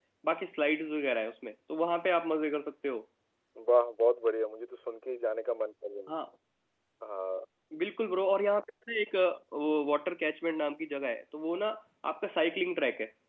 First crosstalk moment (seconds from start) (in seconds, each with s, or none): none